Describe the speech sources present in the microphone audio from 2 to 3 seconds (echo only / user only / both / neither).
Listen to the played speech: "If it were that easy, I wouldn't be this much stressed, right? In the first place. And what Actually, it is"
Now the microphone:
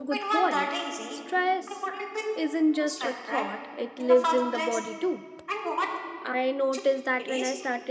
both